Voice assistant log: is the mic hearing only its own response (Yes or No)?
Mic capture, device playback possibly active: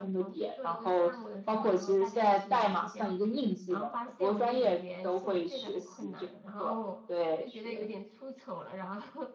No